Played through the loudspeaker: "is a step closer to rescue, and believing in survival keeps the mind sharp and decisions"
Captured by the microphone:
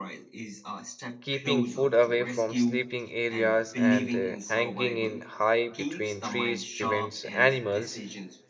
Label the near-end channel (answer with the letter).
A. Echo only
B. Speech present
B